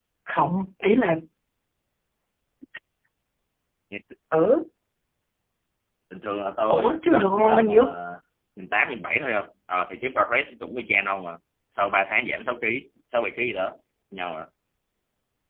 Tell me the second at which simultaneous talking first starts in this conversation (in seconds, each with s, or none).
6.7 s